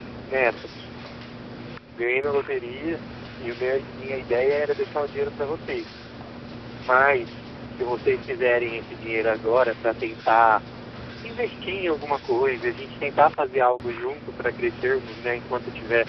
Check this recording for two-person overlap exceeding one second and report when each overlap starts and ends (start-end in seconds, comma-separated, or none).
none